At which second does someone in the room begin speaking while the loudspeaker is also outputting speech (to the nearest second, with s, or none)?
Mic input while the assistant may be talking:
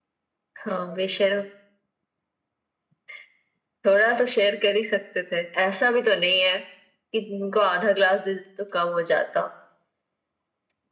none